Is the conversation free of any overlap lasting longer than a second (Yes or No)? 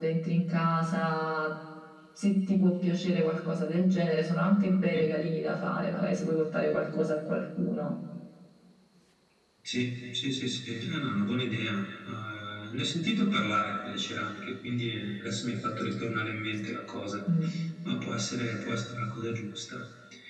Yes